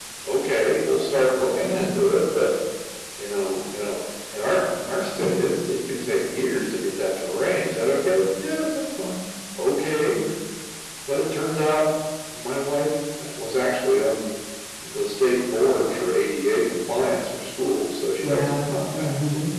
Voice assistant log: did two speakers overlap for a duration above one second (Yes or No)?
Yes